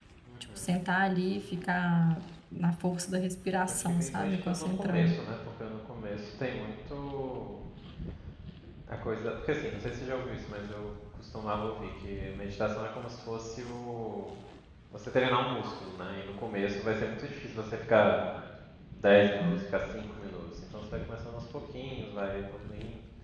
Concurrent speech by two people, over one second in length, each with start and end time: 3.7-5.2

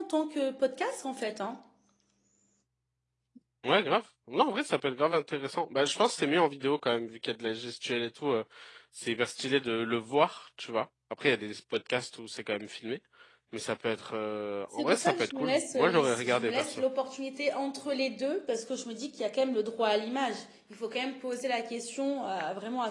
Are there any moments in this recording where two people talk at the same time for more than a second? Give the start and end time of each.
14.7-16.8

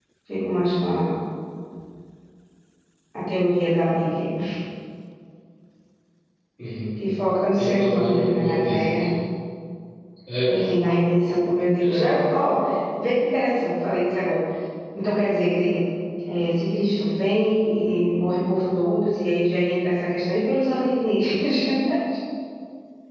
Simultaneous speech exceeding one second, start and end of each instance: 7.6-9.0

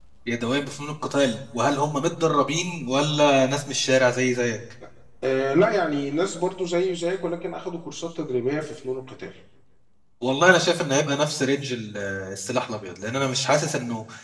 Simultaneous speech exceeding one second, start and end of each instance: none

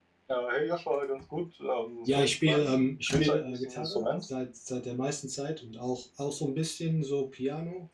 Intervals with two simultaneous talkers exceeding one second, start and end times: 2.0-4.2

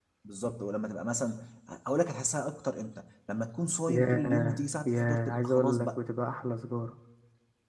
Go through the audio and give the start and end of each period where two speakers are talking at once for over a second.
3.9-5.9

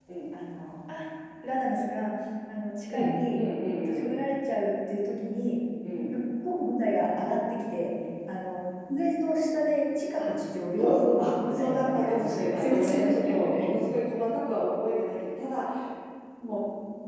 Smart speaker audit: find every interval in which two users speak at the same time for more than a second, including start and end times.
10.8-13.7

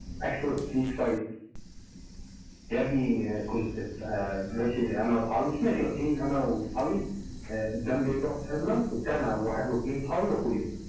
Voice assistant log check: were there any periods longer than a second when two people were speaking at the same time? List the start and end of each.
none

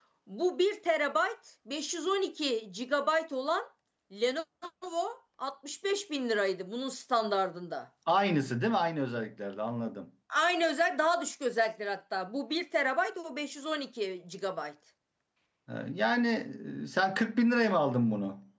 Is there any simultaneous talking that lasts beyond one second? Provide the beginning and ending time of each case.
none

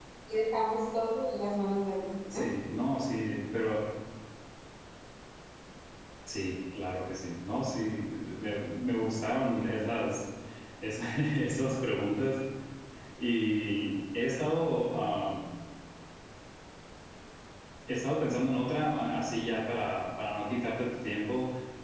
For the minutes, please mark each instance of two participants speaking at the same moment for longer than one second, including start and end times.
none

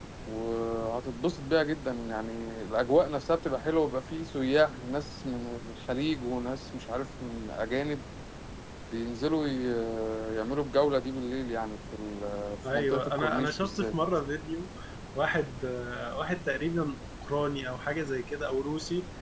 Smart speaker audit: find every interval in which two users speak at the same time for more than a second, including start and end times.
12.7-13.9

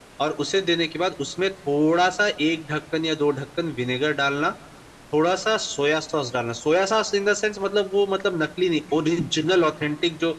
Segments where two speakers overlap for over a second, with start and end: none

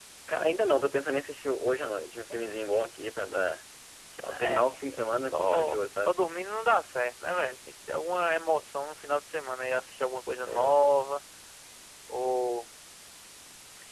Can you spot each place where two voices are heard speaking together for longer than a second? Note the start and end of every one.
4.3-6.1

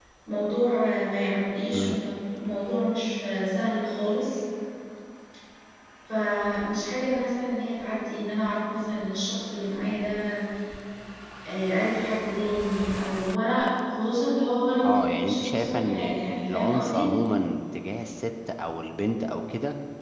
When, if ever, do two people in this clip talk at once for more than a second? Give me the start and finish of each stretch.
14.8-17.1

